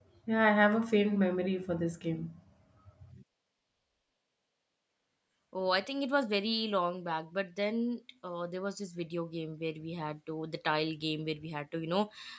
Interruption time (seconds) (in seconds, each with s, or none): none